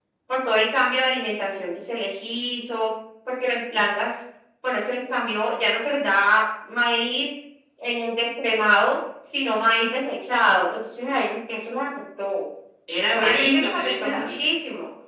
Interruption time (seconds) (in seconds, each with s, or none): 13.1 s